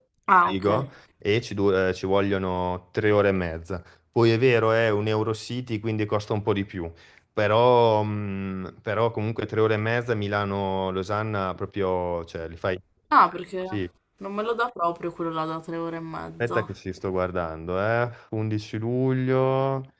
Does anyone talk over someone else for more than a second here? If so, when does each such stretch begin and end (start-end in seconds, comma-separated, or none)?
none